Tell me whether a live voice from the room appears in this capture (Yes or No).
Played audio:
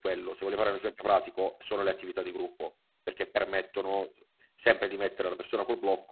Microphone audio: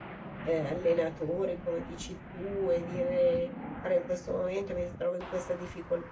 Yes